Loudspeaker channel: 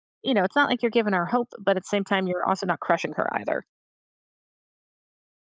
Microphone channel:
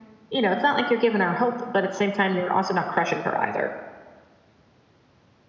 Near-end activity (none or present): none